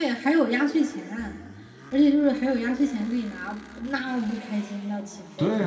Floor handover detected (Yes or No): Yes